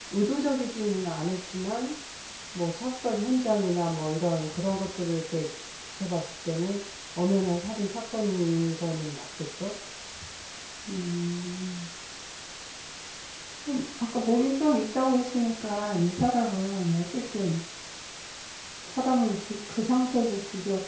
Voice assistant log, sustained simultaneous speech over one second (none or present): none